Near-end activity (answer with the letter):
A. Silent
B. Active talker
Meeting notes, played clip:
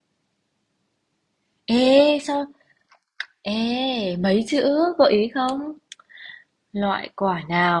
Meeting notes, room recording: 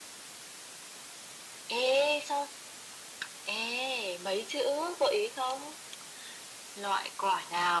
A